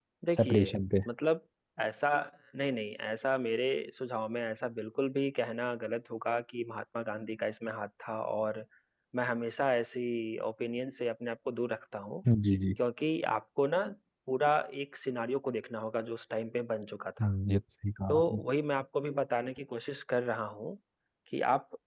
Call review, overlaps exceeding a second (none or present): none